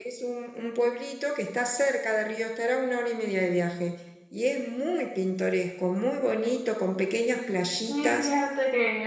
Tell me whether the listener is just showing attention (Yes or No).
No